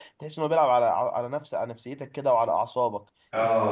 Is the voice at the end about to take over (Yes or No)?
Yes